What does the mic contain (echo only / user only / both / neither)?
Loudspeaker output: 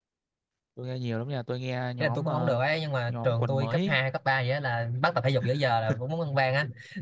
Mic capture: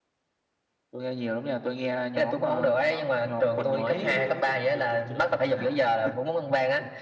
both